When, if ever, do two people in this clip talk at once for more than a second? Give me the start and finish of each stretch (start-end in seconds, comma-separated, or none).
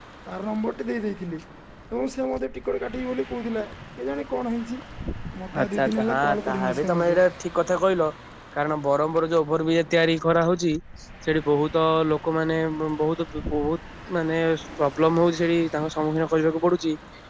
5.6-7.2